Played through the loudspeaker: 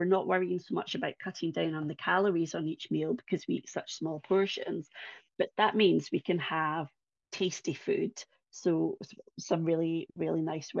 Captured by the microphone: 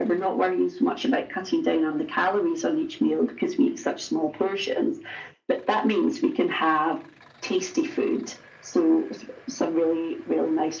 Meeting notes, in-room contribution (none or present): none